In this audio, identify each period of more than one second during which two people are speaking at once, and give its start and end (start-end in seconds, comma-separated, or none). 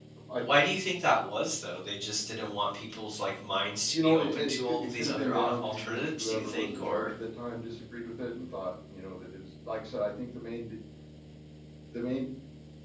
3.9-7.1